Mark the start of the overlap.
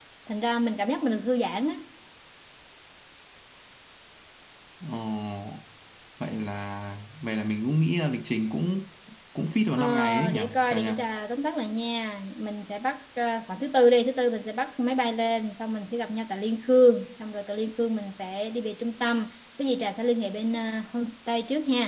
9.7 s

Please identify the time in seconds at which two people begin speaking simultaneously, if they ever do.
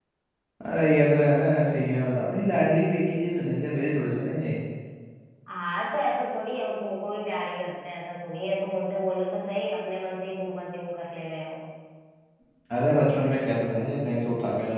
none

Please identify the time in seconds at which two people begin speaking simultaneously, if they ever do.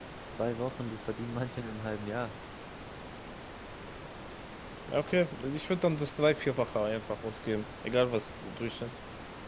none

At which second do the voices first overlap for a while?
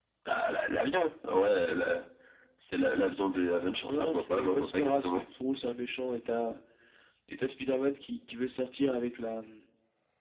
3.8 s

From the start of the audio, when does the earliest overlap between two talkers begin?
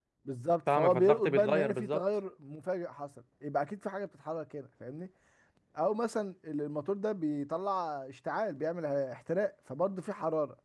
0.8 s

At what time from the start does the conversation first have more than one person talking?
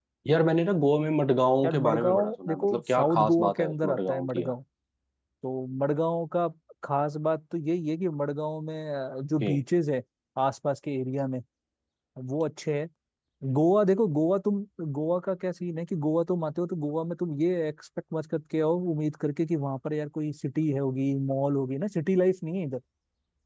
1.6 s

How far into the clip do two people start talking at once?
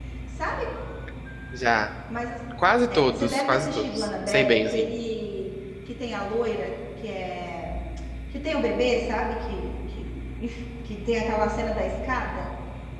2.9 s

